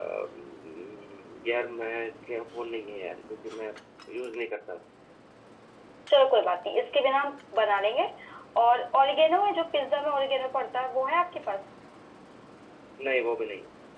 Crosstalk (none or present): none